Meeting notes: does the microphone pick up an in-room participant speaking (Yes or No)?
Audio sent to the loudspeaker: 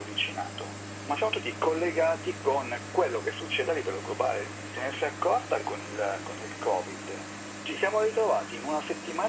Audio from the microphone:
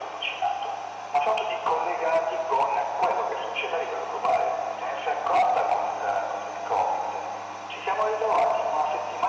No